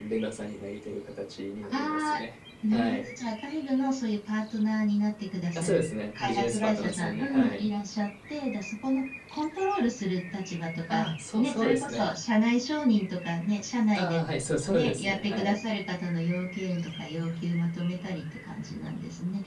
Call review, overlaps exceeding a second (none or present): present